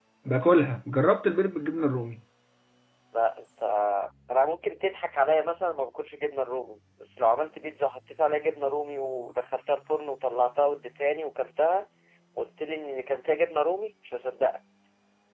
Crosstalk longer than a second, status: none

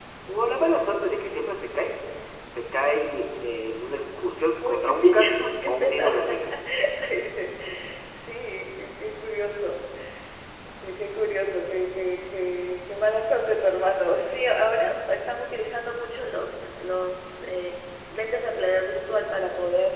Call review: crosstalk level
present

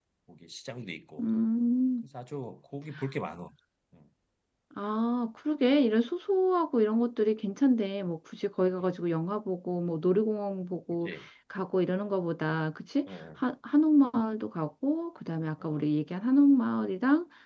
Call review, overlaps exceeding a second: none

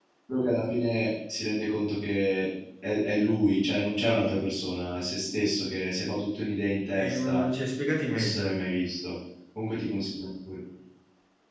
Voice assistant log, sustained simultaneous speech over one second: none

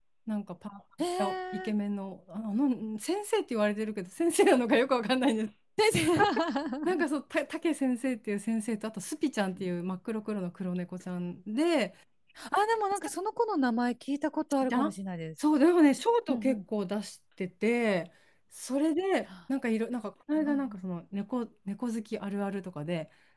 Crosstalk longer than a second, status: none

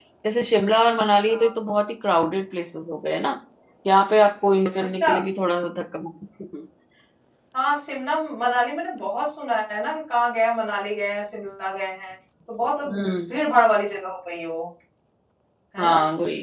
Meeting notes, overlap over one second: none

